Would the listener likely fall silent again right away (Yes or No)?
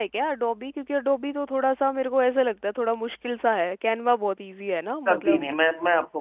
No